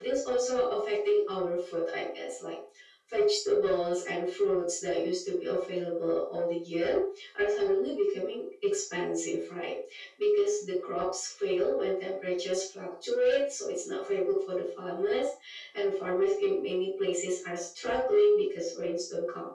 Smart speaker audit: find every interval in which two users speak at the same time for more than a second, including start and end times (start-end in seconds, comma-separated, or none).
none